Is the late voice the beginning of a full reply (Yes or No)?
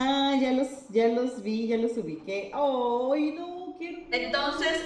Yes